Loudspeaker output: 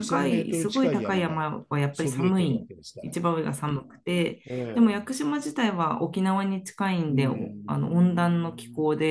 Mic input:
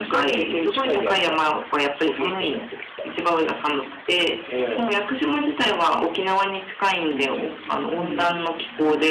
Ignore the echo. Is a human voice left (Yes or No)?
Yes